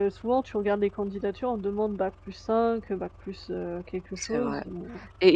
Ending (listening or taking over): taking over